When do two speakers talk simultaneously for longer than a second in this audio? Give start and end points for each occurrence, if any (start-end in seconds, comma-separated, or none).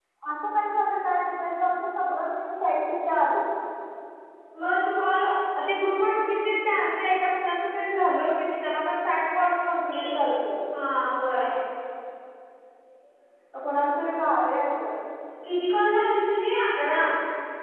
none